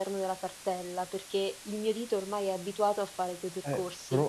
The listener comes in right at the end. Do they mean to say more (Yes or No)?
Yes